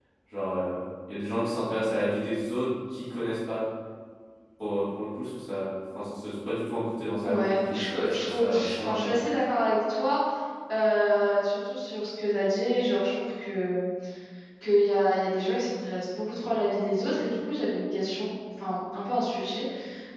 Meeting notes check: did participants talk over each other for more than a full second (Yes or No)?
Yes